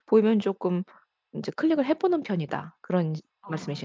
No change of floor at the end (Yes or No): No